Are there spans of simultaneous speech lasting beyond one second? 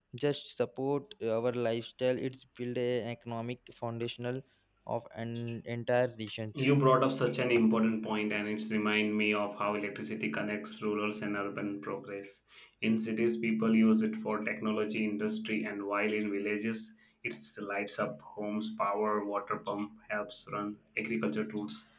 No

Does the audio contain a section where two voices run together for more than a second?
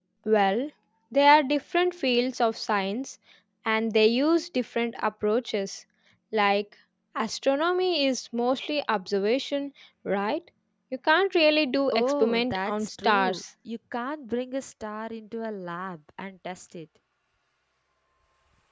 Yes, from 11.9 s

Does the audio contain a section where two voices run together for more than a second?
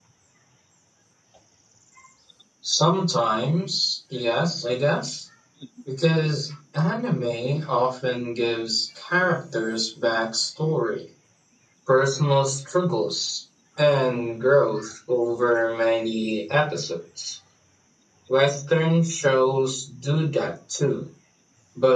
No

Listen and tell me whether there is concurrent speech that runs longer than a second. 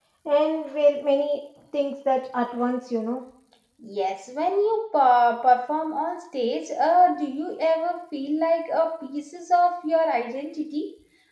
No

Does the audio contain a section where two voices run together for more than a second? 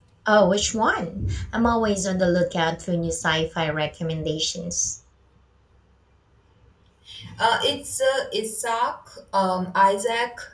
No

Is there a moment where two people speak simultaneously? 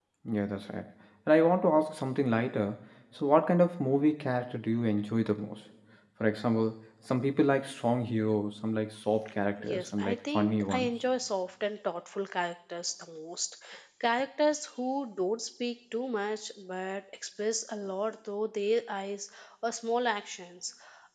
Yes, from 9.6 s

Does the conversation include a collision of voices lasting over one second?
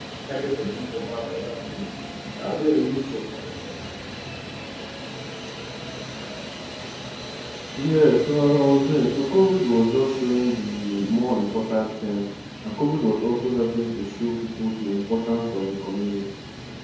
No

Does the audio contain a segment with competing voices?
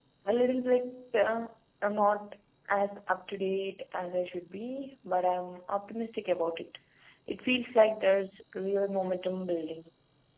No

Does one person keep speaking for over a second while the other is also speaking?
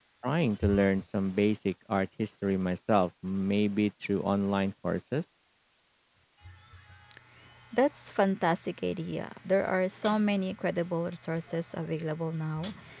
No

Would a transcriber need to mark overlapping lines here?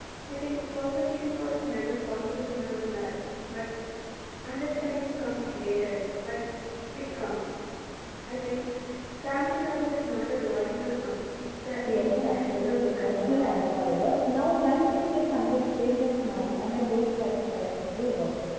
Yes, from 11.8 s

